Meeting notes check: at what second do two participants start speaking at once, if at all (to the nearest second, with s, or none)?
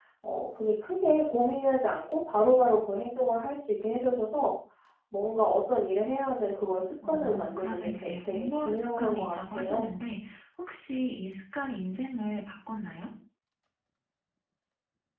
7 s